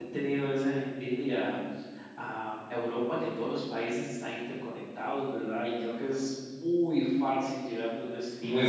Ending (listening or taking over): listening